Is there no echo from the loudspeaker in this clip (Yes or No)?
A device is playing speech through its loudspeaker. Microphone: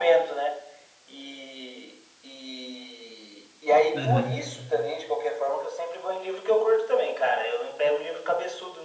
No